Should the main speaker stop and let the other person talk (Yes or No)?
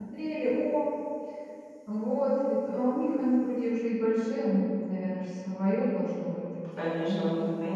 Yes